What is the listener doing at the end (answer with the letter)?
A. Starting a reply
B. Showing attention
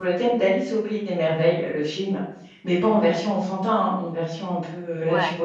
B